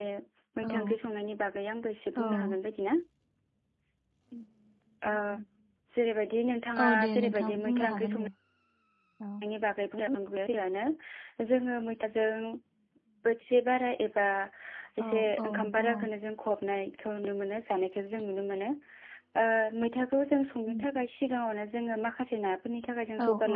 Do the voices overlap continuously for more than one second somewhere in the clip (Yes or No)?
Yes